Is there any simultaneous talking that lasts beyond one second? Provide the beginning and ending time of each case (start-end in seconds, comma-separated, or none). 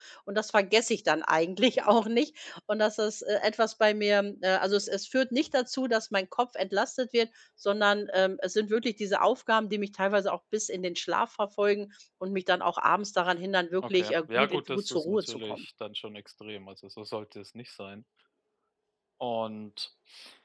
13.8-15.6